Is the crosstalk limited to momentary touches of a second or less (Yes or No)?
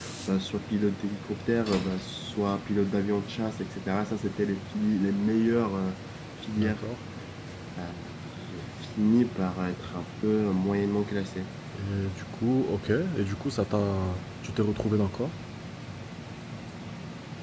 Yes